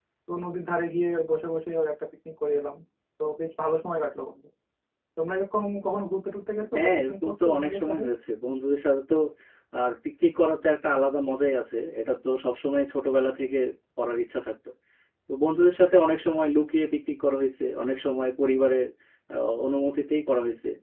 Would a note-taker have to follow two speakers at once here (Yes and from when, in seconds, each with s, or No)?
Yes, from 6.7 s